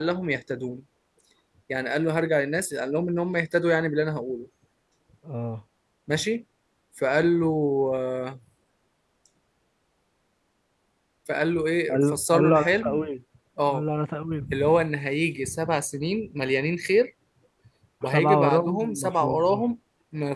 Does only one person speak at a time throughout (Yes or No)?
No